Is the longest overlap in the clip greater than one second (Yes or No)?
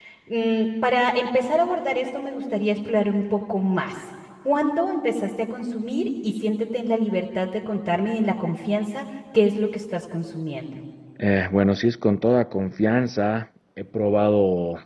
No